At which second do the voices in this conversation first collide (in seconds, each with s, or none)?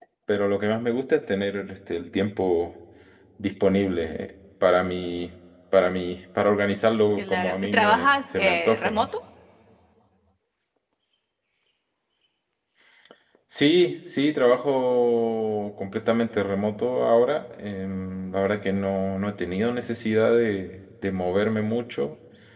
7.2 s